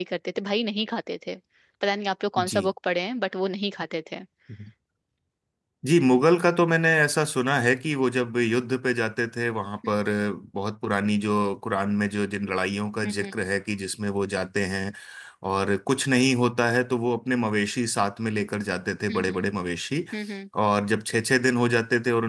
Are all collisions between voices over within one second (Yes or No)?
Yes